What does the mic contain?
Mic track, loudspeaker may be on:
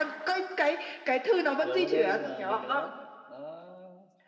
both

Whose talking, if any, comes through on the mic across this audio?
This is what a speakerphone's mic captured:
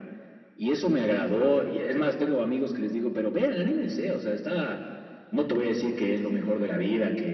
echo only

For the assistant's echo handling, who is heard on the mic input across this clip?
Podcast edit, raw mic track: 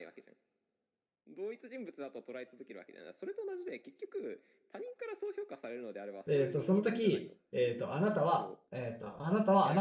both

